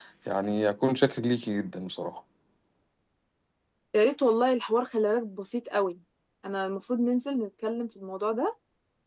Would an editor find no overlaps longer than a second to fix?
Yes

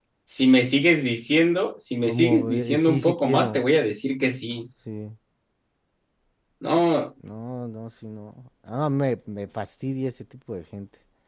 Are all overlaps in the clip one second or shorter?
No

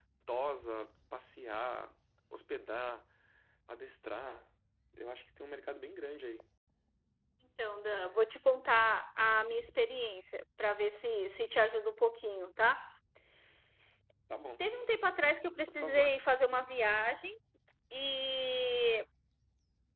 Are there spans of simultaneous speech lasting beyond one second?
No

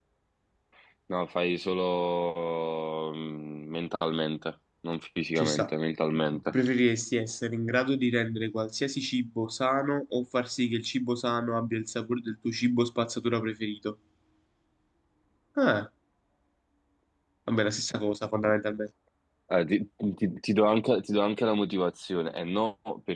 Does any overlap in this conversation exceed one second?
No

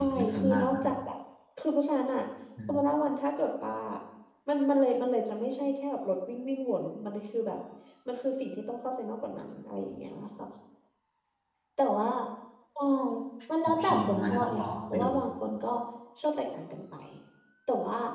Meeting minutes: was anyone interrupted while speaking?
Yes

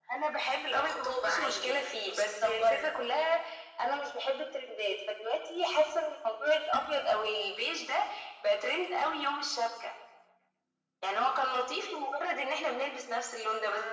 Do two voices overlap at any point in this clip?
Yes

